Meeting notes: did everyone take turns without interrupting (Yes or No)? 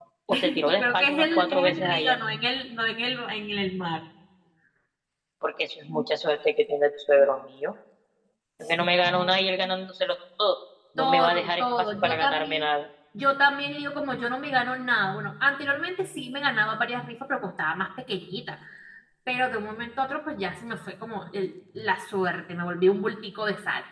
No